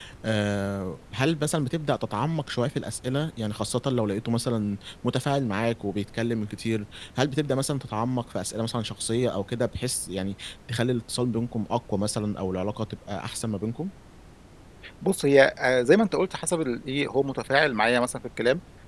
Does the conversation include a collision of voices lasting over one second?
No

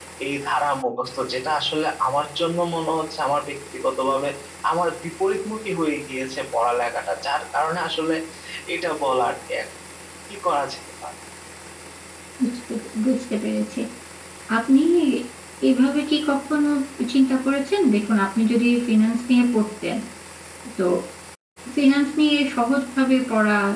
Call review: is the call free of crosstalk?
Yes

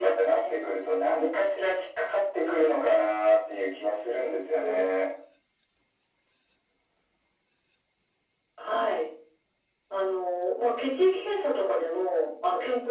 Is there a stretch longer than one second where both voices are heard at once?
No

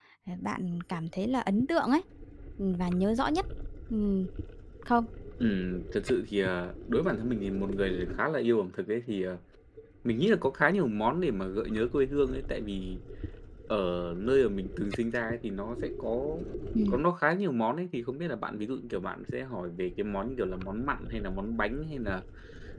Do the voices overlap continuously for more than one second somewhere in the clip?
No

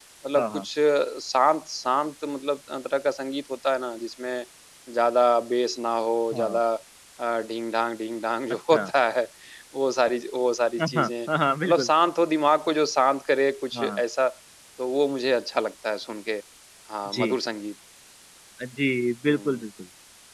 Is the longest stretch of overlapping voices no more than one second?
Yes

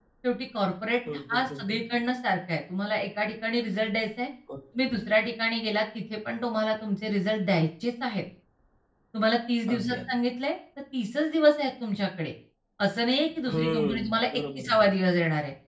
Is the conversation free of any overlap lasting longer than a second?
No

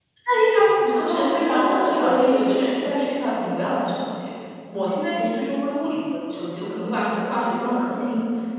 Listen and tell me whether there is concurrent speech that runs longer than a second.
Yes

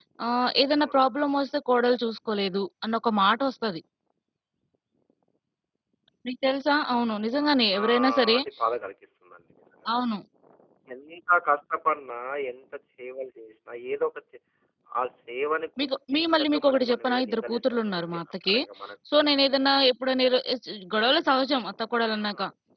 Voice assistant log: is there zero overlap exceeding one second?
No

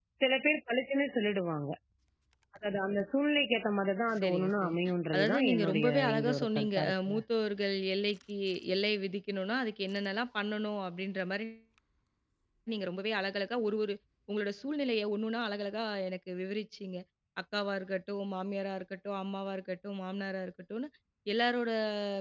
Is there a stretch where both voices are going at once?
Yes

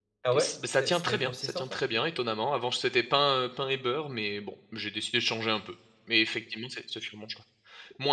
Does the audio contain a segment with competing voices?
Yes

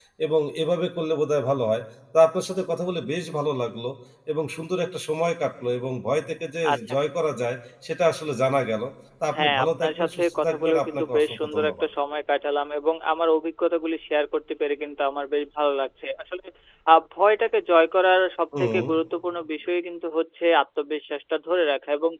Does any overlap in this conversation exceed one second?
Yes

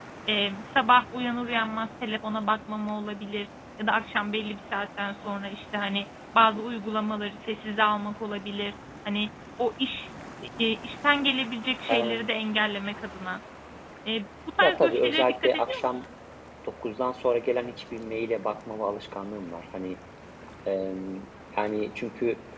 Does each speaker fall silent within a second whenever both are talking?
No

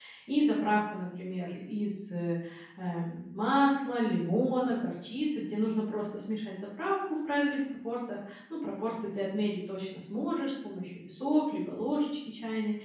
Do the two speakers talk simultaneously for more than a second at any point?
No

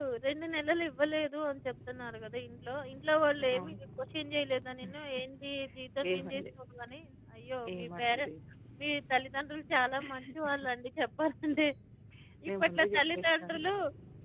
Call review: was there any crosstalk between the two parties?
Yes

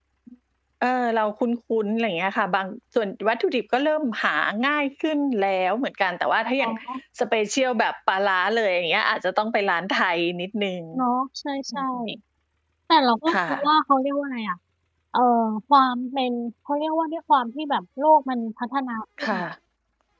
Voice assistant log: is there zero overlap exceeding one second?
Yes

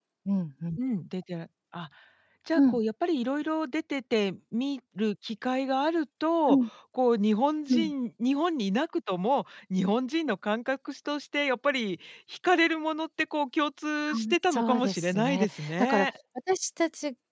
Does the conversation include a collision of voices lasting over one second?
Yes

